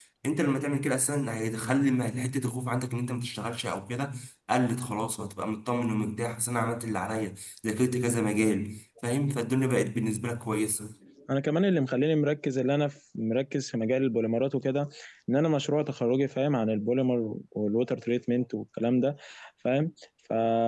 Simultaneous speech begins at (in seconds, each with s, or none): none